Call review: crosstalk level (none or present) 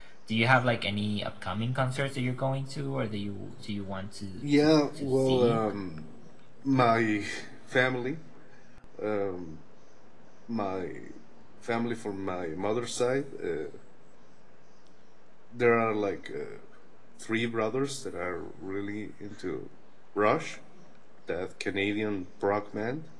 present